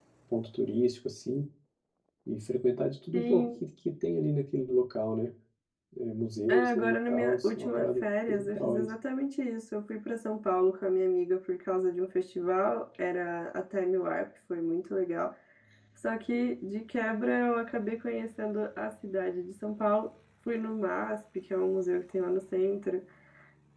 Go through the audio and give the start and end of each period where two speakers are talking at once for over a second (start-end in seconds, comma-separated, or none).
6.5-8.9